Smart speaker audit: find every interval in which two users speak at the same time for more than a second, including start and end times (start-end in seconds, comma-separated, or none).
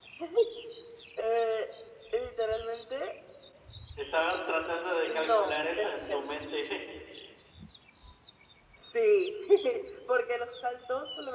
5.0-6.3